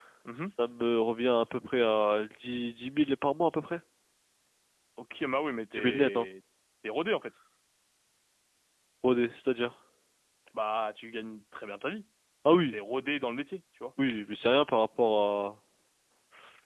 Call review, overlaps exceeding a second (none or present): none